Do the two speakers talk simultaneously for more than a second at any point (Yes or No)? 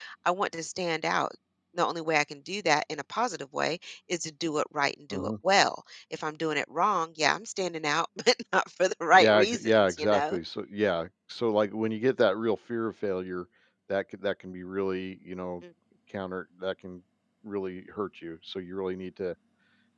Yes